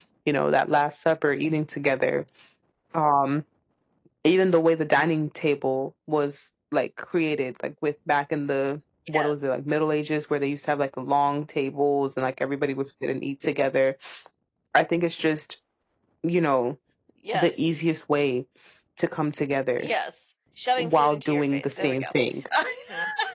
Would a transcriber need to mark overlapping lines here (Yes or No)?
Yes